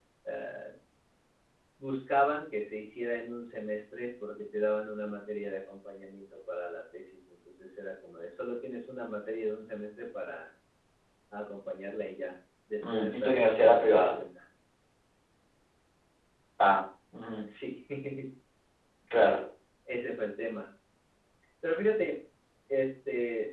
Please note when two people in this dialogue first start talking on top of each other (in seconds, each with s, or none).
12.8 s